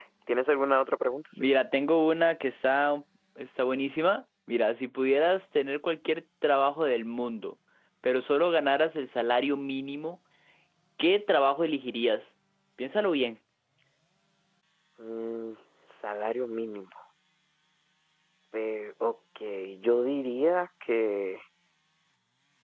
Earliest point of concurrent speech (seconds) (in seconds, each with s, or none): none